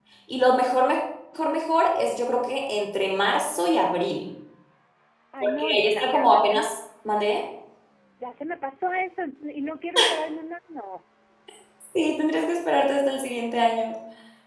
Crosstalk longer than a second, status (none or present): present